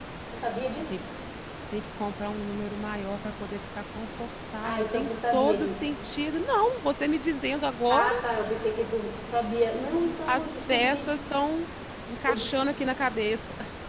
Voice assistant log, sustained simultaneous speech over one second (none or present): present